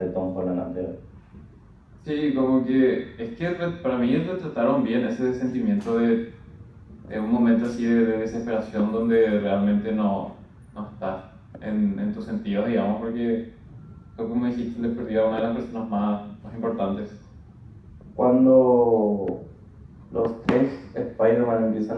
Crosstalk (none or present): none